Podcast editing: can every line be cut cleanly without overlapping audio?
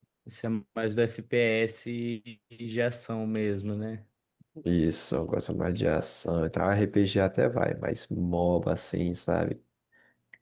Yes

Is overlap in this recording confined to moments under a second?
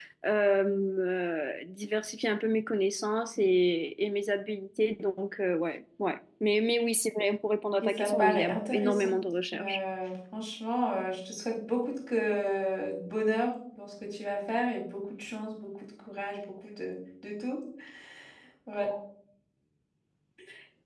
No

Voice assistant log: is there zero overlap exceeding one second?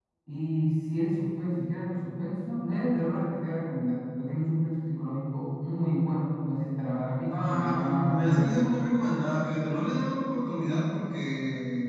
No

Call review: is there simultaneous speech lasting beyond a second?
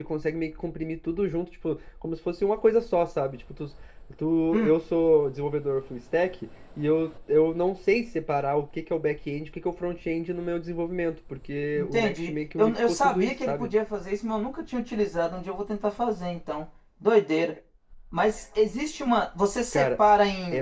Yes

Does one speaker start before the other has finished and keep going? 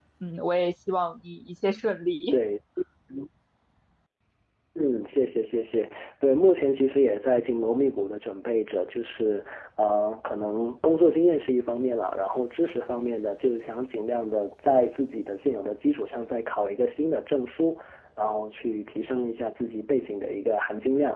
No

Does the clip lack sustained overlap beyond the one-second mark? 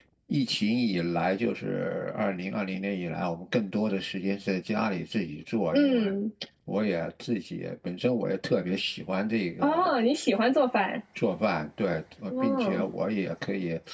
Yes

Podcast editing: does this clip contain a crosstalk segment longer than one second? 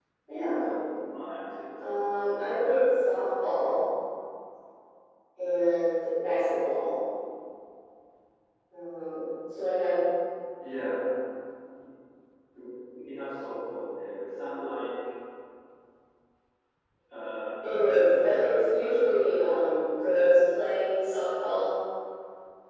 Yes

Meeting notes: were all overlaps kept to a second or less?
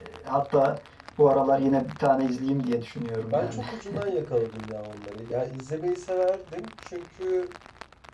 Yes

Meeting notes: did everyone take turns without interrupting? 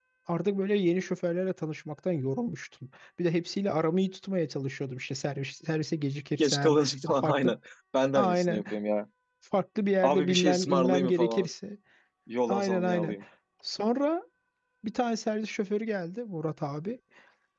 No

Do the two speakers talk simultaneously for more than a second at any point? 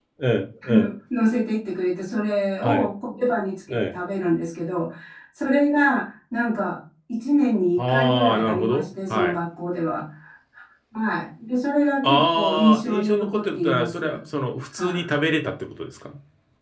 Yes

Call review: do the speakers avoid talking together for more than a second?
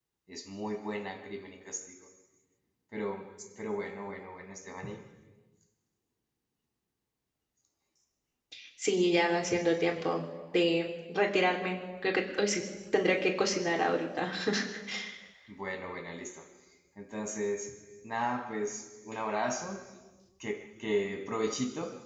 Yes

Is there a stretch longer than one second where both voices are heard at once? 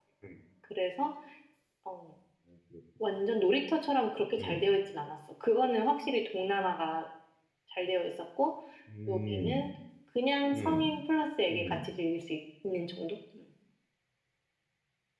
No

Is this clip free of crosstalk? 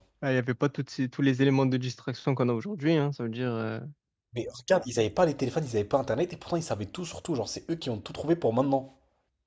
Yes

